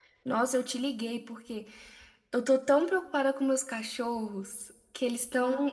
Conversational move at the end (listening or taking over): listening